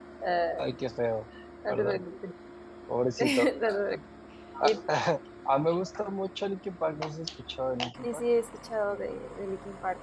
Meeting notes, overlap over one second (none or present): none